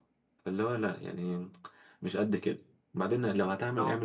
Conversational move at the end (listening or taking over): listening